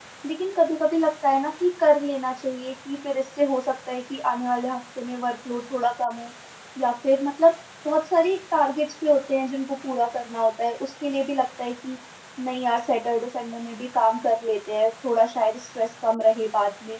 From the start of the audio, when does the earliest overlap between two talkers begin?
none

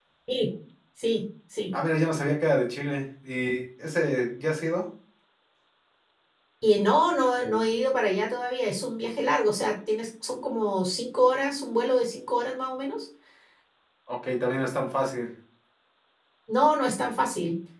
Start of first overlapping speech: none

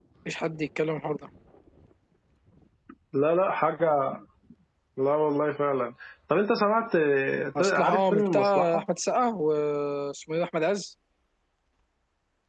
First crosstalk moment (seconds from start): 8 s

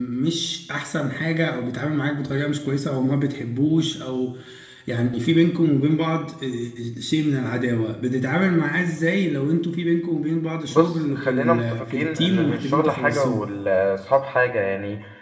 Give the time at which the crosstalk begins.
11 s

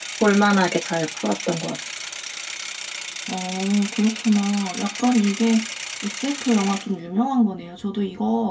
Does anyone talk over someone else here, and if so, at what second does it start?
none

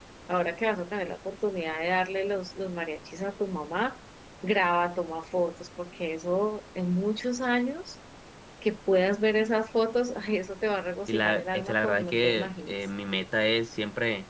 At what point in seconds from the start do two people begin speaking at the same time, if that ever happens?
11 s

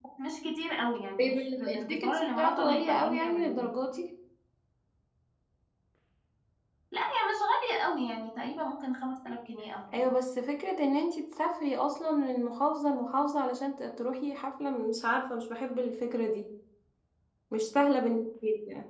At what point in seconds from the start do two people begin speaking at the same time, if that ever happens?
1 s

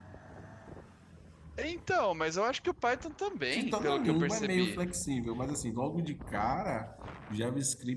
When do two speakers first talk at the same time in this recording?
4 s

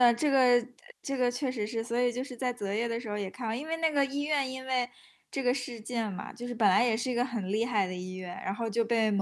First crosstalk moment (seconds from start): none

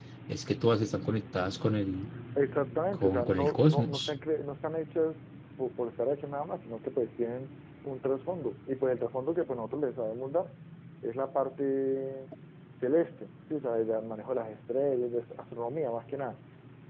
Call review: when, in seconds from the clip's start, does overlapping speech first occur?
3 s

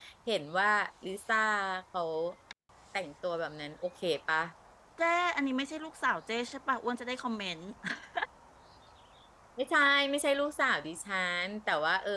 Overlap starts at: none

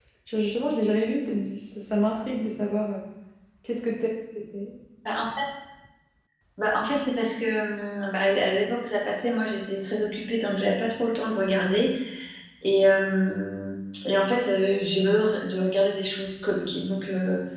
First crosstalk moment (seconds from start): none

